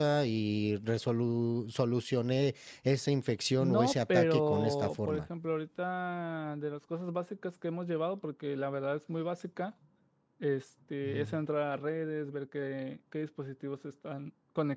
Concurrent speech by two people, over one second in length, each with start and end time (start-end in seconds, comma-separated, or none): 3.6-5.2